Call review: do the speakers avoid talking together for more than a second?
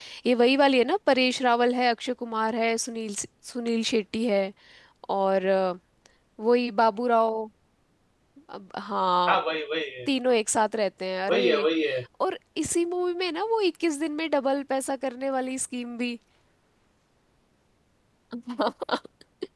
Yes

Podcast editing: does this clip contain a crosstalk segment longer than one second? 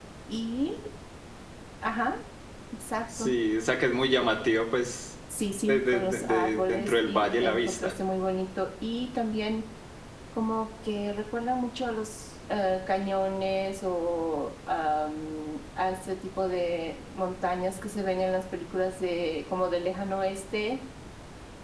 Yes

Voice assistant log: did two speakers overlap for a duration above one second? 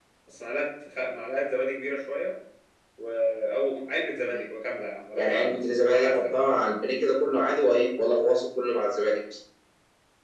Yes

